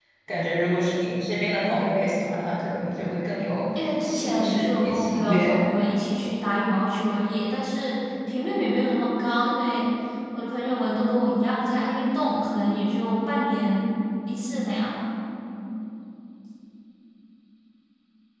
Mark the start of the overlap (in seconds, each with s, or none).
3.8 s